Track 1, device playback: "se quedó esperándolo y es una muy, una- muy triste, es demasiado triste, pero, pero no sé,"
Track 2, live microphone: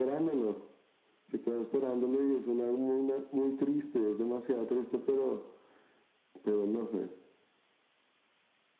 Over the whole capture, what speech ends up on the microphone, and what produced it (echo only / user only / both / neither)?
echo only